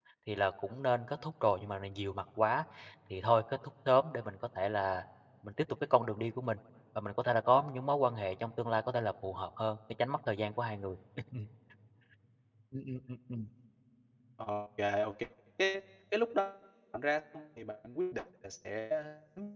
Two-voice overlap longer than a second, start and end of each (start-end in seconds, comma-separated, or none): none